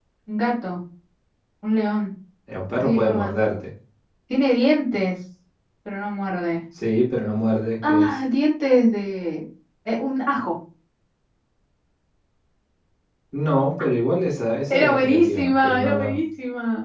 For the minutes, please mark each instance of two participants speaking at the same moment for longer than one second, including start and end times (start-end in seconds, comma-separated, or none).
14.7-16.2